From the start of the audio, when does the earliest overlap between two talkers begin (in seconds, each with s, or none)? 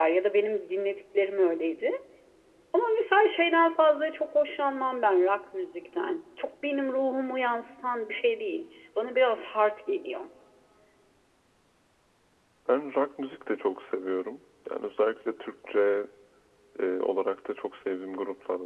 none